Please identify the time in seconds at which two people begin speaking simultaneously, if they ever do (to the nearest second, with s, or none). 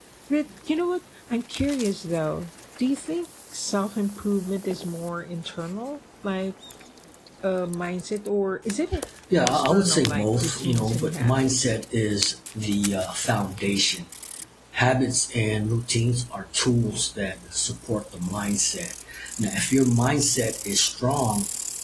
9 s